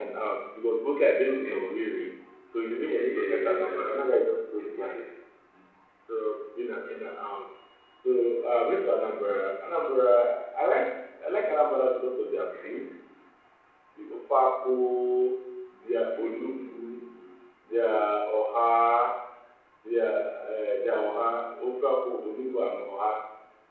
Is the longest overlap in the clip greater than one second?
Yes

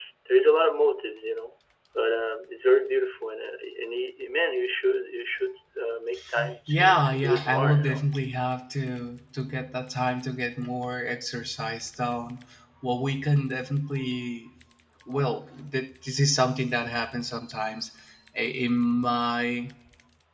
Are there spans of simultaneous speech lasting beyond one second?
Yes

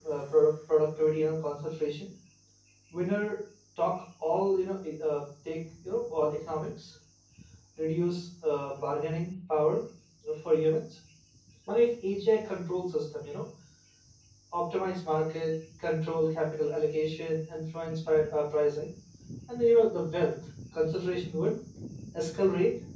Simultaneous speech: No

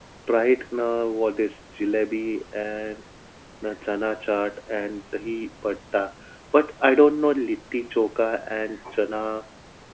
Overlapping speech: No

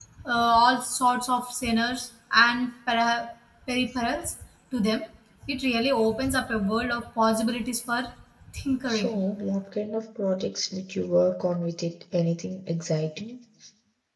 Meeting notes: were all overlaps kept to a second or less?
Yes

